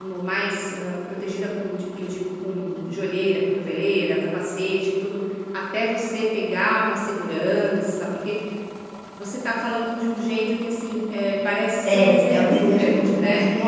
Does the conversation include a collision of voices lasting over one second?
Yes, from 11.8 s

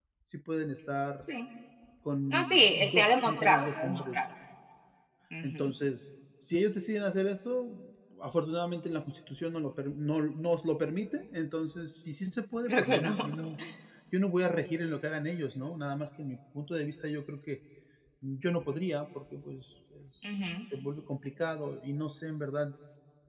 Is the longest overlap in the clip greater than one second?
Yes, from 2.3 s

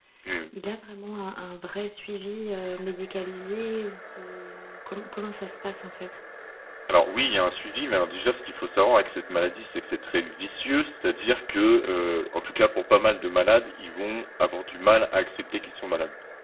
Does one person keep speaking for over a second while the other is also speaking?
No

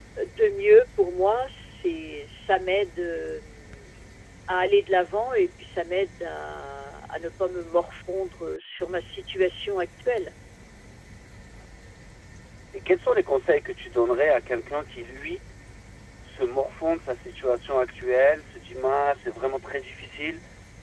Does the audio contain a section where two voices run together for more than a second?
No

